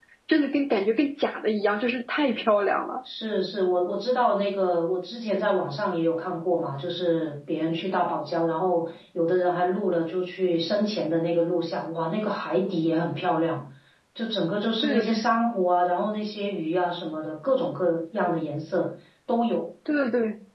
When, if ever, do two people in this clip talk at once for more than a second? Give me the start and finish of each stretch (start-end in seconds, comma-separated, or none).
none